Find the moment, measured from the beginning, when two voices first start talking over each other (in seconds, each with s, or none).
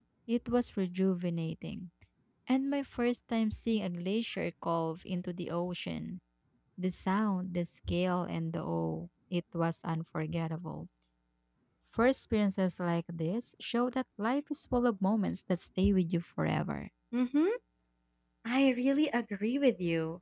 none